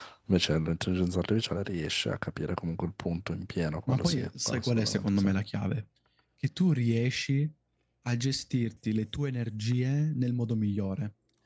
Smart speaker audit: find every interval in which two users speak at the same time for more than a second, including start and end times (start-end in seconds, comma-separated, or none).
3.9-5.3